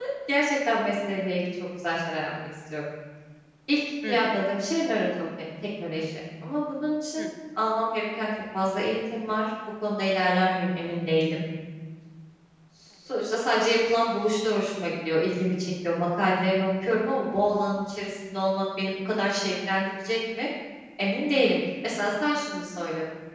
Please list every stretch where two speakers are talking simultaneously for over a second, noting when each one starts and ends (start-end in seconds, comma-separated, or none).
none